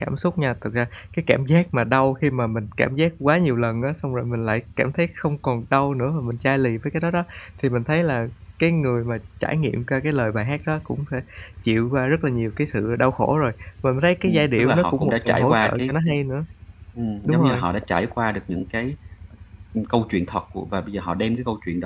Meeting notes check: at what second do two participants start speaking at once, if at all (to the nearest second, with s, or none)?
14 s